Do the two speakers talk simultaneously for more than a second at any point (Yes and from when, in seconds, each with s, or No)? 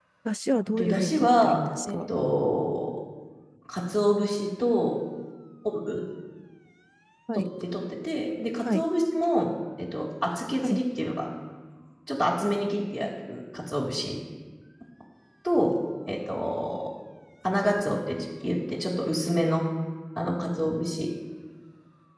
Yes, from 0.8 s